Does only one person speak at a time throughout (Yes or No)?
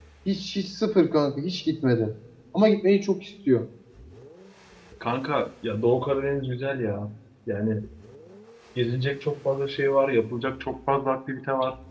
Yes